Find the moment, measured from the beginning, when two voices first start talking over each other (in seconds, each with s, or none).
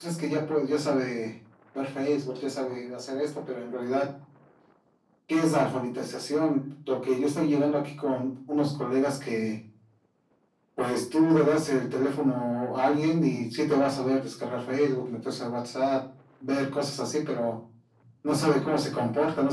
none